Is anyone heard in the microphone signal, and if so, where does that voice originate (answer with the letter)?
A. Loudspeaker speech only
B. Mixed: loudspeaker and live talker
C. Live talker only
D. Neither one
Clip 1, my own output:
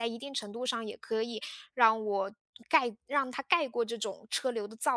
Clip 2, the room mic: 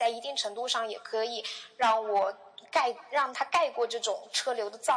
A